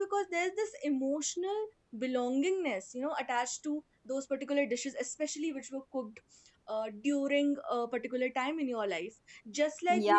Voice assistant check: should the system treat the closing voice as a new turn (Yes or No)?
Yes